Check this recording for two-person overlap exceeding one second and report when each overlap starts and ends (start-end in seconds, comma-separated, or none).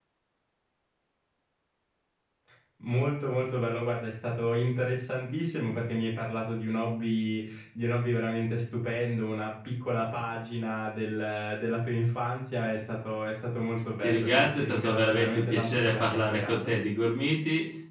14.0-16.7